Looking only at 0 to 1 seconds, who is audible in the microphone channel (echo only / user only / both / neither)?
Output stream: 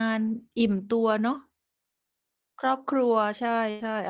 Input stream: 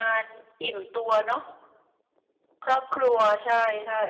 echo only